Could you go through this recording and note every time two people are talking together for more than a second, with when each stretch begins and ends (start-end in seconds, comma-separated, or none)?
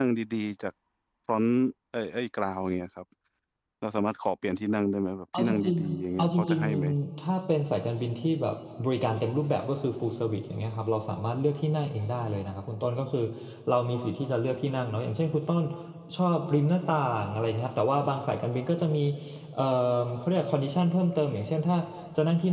5.3-6.9